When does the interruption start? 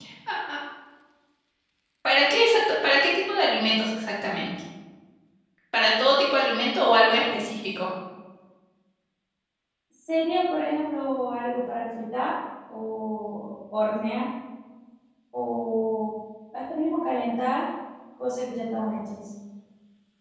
none

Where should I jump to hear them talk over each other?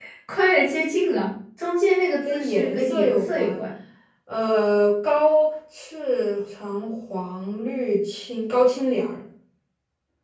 2 s

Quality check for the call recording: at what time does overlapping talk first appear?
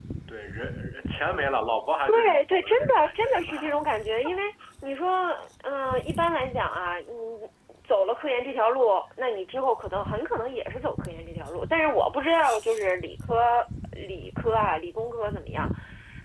2 s

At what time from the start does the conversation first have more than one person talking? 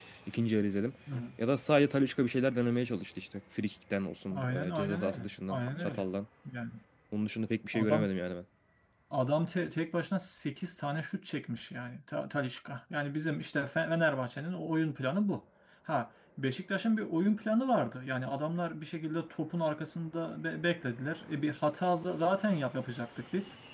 4 s

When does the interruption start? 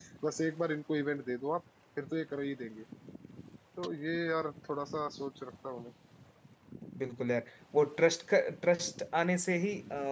none

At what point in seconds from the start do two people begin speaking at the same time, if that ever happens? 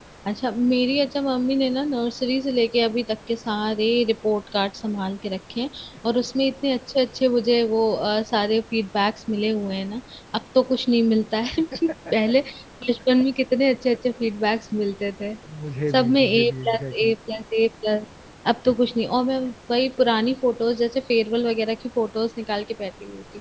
16 s

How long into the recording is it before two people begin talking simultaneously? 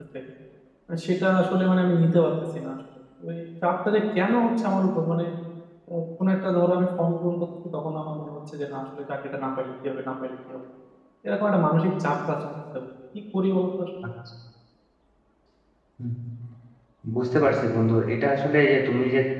none

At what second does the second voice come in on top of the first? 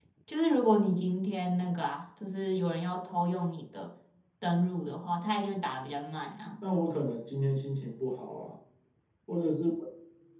none

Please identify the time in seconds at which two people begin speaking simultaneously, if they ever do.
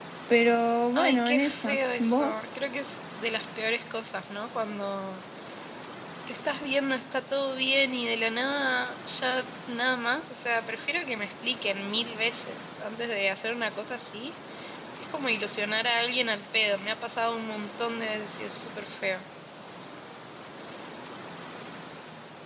1 s

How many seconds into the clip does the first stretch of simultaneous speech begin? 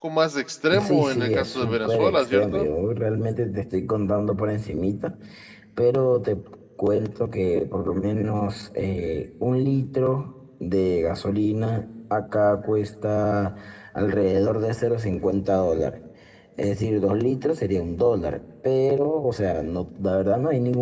1 s

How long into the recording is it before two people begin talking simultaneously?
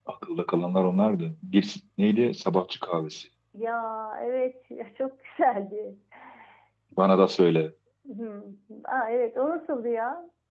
none

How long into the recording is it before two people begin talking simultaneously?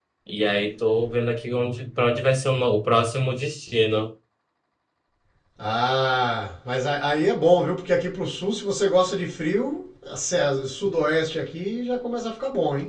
none

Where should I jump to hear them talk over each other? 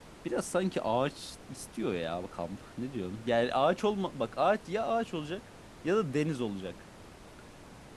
none

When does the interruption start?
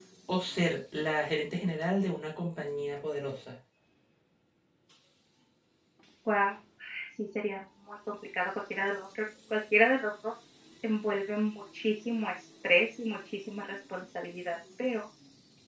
none

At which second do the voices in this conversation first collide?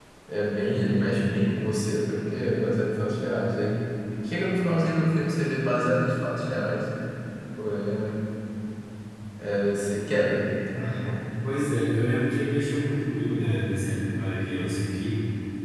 none

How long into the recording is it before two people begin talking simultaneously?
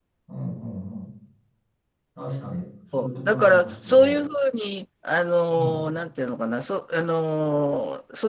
3 s

